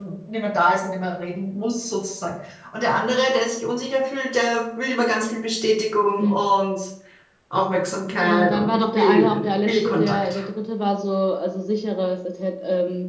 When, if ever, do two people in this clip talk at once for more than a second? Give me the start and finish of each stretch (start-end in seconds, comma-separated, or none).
8.2-10.4